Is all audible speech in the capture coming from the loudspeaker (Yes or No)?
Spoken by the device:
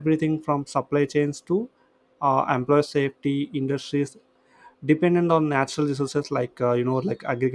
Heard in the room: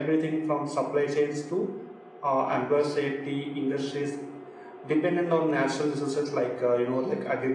Yes